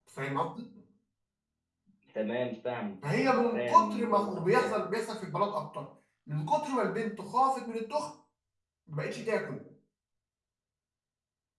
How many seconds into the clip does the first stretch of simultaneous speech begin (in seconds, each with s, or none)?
3.5 s